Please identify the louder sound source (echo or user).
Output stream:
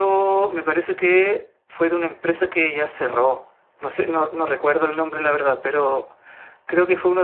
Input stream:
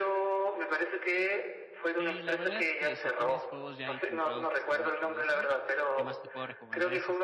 echo